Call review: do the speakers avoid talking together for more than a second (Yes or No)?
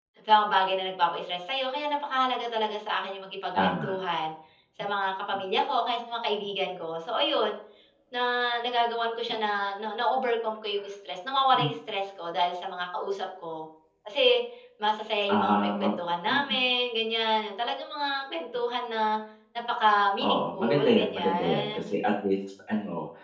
No